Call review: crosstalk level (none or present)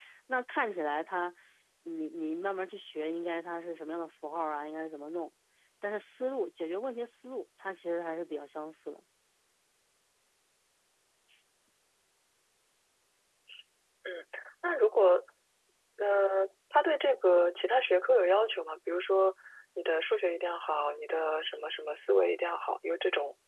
none